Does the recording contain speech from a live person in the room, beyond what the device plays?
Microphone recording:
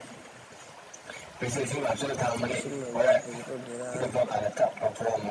Yes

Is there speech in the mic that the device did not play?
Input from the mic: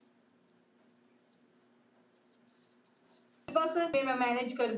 Yes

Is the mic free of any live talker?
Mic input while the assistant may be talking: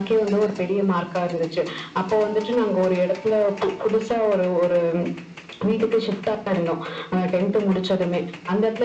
Yes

